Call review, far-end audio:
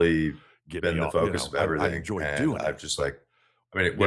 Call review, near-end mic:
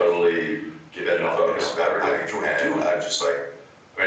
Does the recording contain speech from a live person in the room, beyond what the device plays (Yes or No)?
No